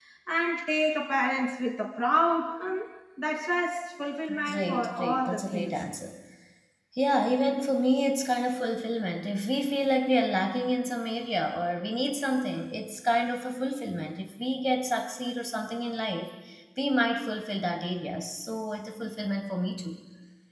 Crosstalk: present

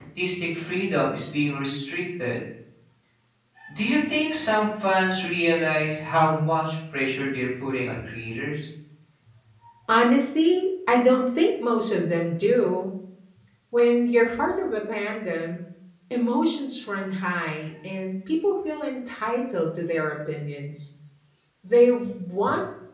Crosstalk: none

